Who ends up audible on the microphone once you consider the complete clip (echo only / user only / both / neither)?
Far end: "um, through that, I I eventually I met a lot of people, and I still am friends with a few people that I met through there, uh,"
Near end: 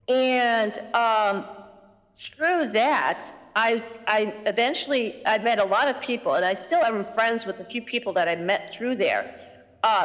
echo only